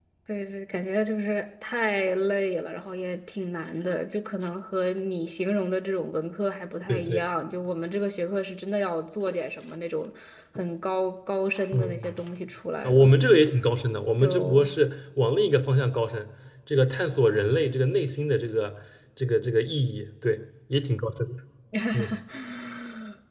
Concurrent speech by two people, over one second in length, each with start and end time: none

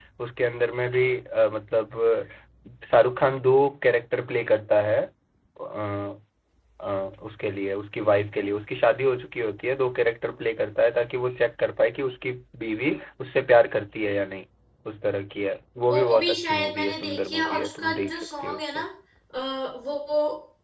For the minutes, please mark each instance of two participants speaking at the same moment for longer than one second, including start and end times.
15.8-18.8

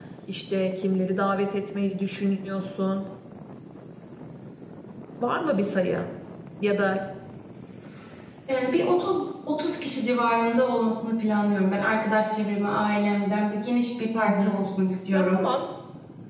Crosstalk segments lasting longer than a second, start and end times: none

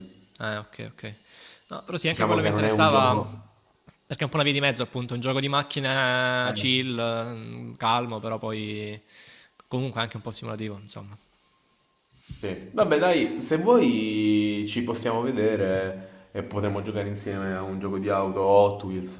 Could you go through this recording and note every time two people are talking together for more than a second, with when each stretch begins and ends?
2.1-3.3

